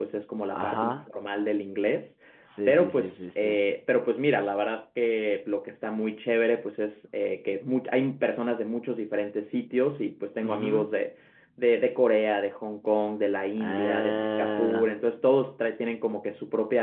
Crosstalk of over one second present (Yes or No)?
Yes